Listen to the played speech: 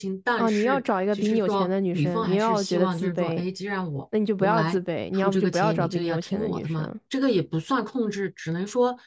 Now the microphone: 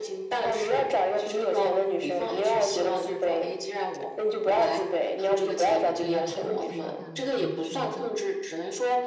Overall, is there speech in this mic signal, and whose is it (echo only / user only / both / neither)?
both